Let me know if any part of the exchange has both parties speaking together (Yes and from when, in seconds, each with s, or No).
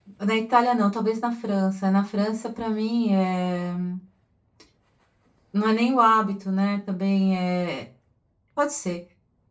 No